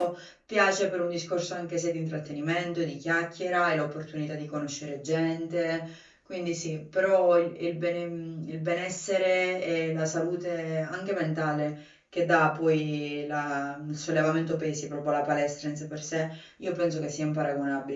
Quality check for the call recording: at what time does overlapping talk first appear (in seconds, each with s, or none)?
none